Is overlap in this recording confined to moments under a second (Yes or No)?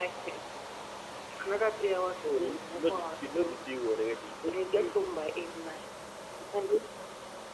No